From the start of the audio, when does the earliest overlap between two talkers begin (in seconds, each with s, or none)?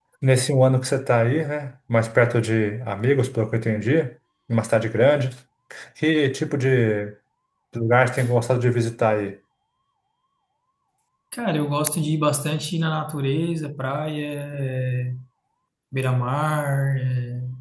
none